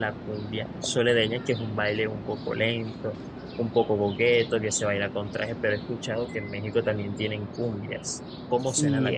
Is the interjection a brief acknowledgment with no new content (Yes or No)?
No